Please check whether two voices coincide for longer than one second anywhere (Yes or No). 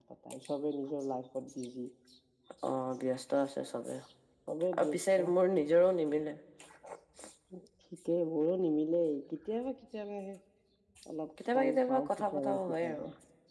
Yes